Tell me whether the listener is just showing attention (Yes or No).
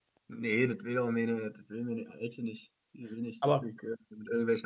Yes